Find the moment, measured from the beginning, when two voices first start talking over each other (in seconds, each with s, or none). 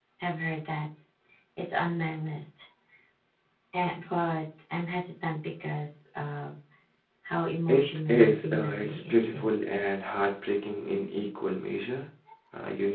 7.7 s